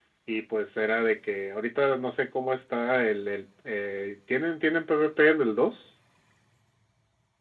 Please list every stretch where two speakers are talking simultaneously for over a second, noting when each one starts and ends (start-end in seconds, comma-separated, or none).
none